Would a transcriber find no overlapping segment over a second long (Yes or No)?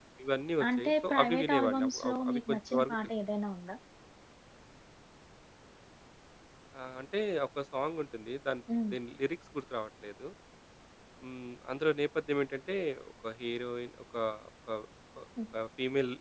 No